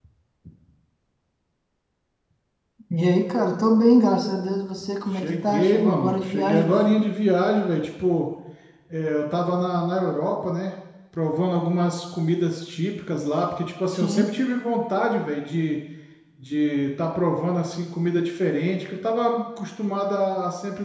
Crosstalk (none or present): present